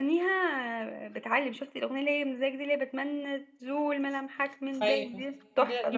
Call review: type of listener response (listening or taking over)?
taking over